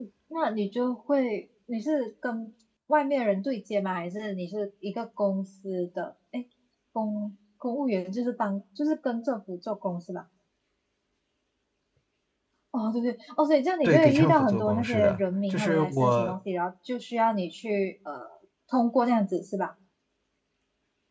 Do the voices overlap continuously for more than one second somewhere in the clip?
Yes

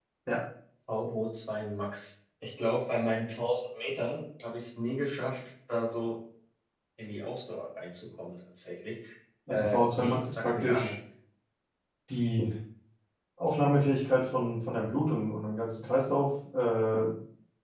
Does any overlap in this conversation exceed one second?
Yes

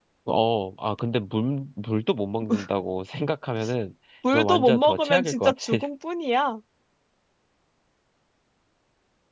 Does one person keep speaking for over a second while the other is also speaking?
Yes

